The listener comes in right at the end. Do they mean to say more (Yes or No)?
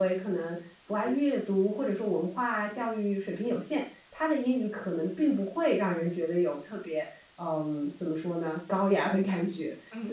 Yes